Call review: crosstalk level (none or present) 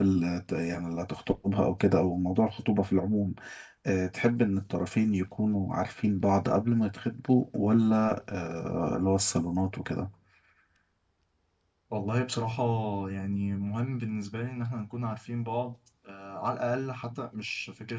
none